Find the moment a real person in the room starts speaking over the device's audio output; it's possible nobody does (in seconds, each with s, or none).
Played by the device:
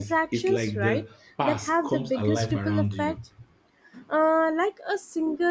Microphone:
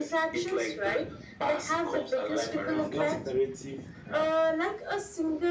2.7 s